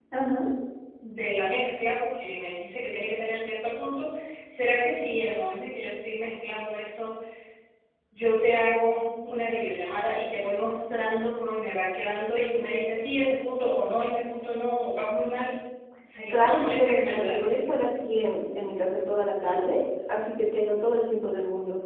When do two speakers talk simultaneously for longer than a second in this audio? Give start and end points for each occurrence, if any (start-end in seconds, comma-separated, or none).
16.3-17.7